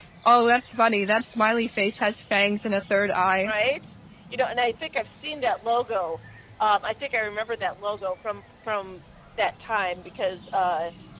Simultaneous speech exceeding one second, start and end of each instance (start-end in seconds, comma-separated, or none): none